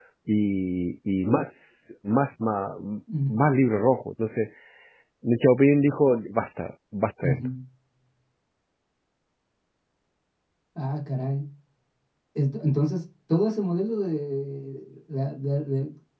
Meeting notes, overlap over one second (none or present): none